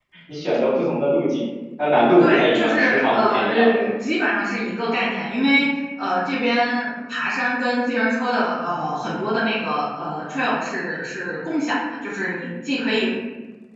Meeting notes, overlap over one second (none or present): present